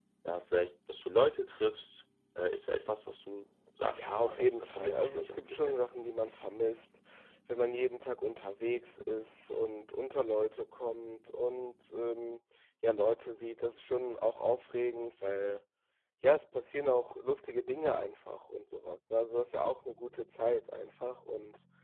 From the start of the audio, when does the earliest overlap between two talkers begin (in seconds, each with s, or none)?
3.9 s